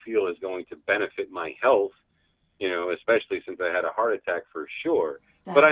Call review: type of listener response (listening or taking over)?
listening